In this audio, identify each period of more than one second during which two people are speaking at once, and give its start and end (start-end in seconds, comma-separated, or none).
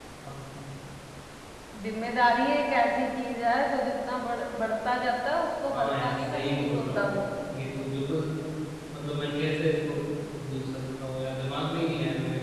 5.7-7.1